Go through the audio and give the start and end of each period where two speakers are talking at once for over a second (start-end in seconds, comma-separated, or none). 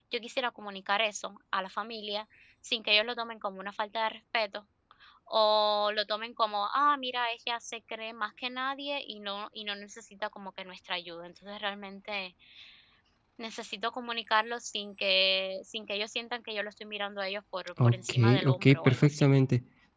17.8-19.3